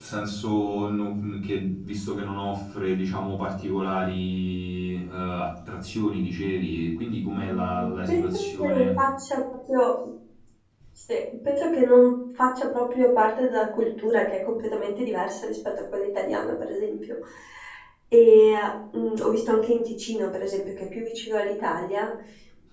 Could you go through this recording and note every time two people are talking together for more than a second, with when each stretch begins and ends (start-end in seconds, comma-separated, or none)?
7.3-9.0